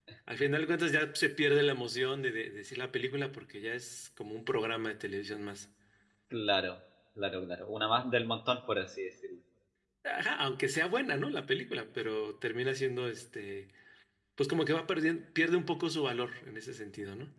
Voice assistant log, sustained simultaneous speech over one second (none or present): none